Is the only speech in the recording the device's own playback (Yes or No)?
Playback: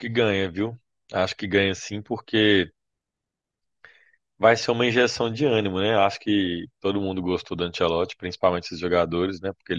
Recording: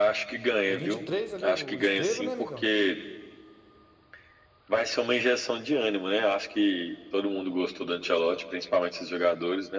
No